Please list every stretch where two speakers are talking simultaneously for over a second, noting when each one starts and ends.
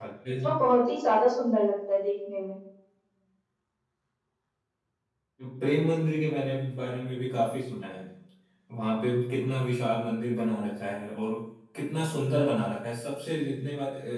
none

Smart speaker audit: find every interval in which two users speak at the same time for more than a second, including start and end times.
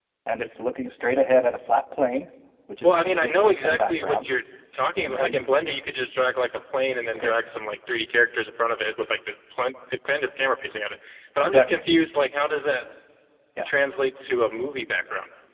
2.8-4.3

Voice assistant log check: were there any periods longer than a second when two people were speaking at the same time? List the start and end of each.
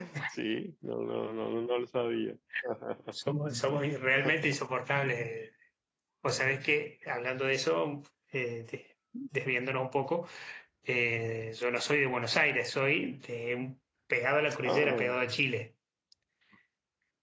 none

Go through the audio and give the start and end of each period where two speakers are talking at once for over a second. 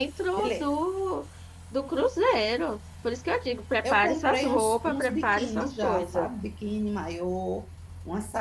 3.9-6.3

